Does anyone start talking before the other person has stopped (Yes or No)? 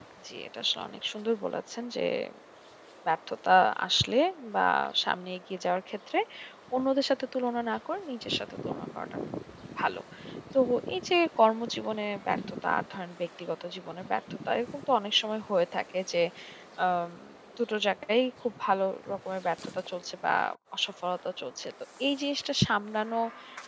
No